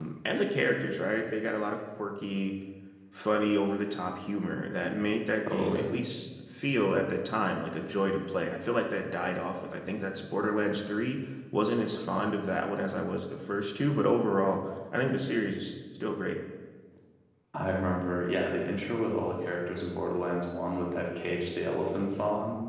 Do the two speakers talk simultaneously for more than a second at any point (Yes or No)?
No